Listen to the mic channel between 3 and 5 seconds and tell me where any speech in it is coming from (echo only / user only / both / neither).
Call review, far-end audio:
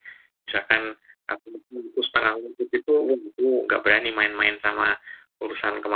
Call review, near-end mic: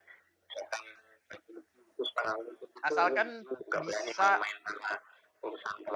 both